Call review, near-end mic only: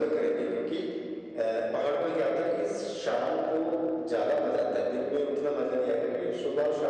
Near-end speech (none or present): none